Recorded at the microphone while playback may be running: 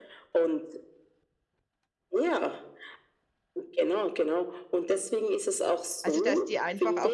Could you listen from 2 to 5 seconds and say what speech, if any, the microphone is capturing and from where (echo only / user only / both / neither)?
echo only